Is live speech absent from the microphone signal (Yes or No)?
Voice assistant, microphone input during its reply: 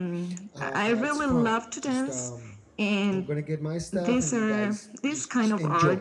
No